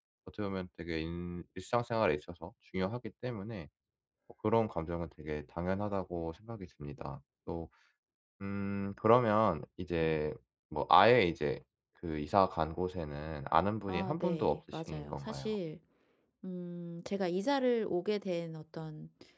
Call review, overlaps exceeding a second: present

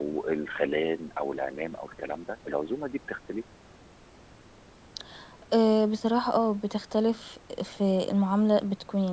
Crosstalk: none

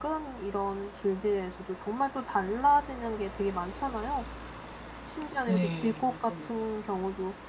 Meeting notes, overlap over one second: present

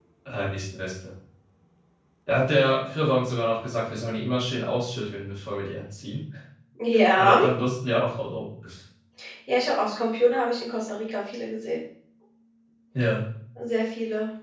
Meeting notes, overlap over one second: none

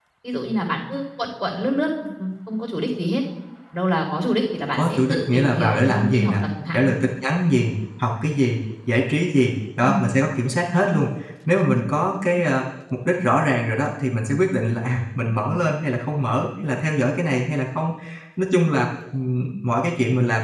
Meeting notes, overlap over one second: present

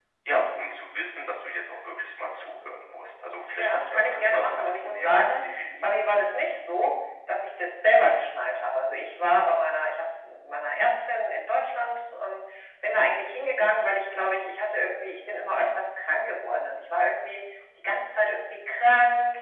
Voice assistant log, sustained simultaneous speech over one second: present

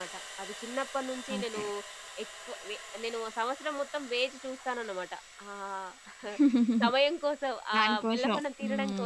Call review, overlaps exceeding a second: present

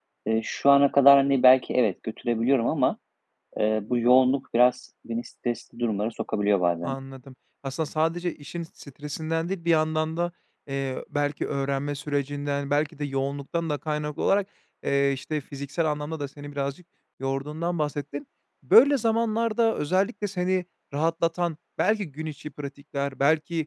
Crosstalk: none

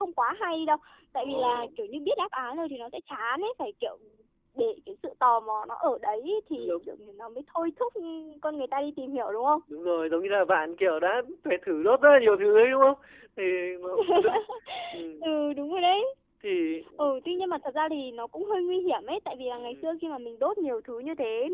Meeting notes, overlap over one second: none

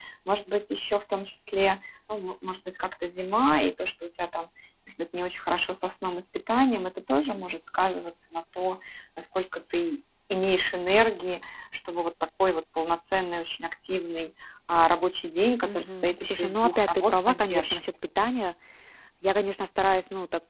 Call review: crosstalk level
present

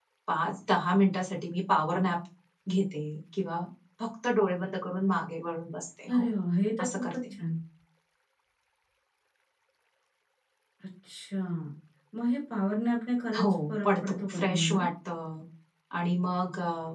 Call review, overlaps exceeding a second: present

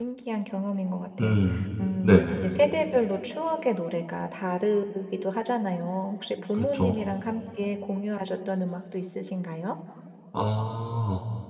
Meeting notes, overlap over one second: none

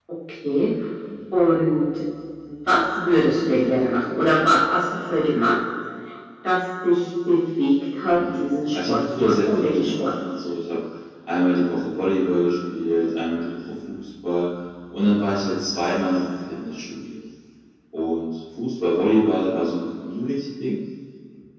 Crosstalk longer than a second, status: present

